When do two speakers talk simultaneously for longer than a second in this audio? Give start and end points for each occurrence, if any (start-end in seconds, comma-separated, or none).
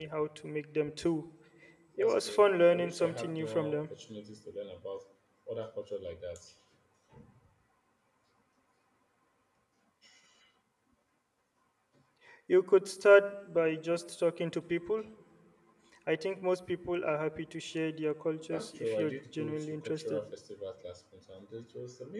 2.0-3.8, 18.5-20.2